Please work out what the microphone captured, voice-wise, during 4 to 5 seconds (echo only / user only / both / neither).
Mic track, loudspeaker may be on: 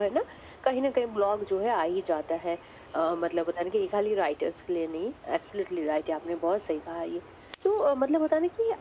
echo only